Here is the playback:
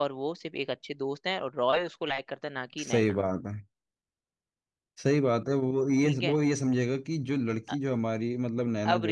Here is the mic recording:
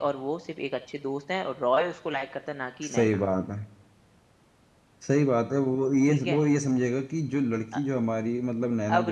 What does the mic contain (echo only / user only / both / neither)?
echo only